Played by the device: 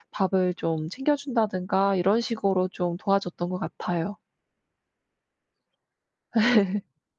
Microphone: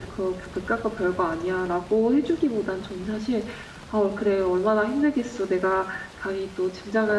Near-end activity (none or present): present